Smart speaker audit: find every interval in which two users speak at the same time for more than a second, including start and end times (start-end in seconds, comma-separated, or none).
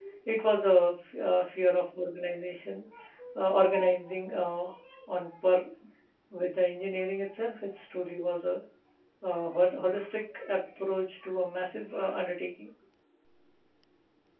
none